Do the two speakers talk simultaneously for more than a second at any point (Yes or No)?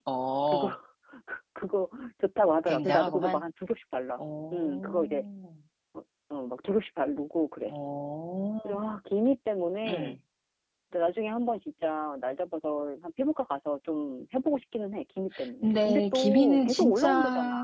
Yes